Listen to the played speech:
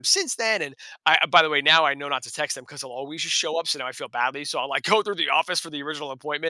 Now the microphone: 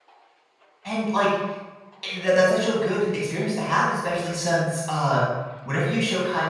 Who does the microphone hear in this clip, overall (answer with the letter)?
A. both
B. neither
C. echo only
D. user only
D